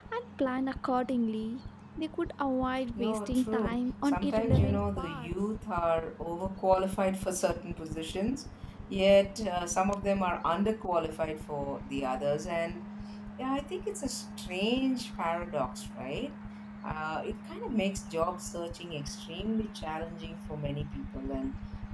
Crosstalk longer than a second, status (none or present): present